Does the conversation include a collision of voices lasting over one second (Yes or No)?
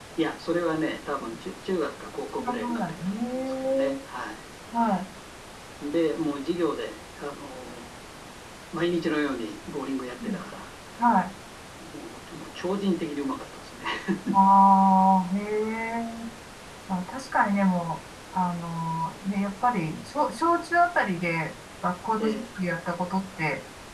Yes